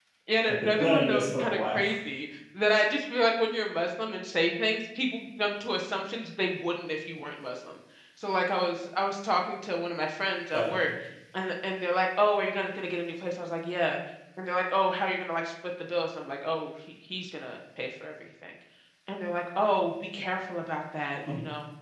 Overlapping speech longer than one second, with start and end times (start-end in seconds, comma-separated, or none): 0.6-1.8